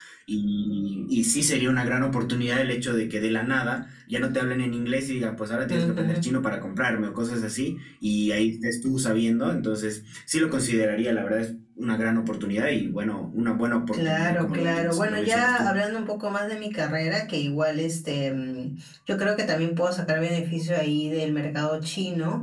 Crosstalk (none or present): present